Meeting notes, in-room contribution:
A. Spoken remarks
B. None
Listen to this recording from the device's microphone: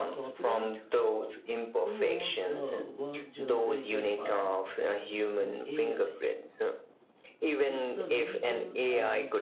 A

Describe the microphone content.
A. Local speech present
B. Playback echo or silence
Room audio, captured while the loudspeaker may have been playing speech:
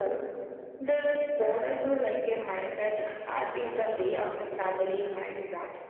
B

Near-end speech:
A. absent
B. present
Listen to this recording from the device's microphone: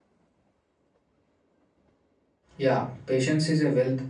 B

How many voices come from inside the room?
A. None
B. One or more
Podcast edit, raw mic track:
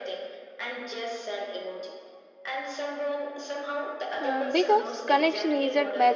B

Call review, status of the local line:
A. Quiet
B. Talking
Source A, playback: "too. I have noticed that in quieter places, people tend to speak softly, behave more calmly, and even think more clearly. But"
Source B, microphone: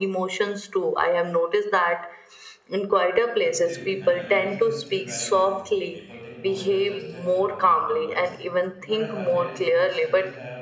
B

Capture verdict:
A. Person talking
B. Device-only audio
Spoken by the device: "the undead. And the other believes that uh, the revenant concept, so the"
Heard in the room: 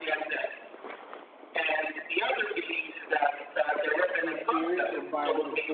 A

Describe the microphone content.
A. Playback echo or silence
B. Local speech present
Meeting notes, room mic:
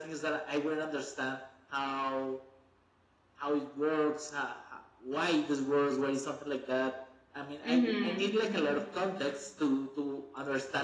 B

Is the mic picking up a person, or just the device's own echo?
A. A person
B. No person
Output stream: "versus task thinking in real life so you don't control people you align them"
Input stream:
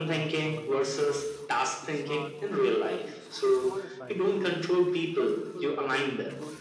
A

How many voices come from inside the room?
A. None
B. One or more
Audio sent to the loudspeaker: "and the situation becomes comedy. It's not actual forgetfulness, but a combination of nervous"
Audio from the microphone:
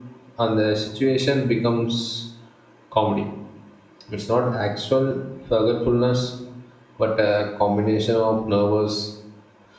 A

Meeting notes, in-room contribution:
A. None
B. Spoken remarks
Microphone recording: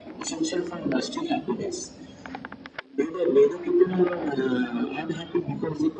A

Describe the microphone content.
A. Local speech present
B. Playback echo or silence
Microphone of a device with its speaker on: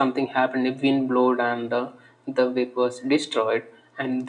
B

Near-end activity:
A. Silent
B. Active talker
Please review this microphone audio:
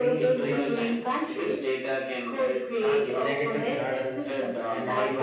B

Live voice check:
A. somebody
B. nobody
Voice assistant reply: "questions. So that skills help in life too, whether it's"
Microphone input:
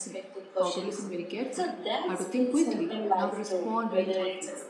A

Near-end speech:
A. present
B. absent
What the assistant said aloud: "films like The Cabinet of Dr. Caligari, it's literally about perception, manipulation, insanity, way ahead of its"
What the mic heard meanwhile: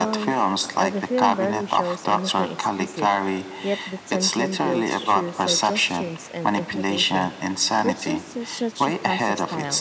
A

